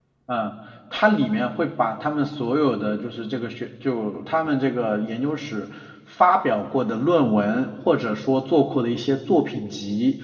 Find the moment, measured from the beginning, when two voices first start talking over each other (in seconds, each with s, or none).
none